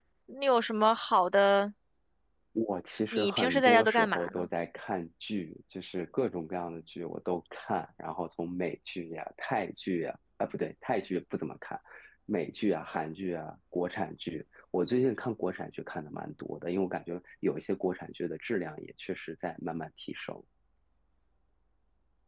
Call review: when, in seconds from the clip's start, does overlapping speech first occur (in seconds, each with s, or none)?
3.1 s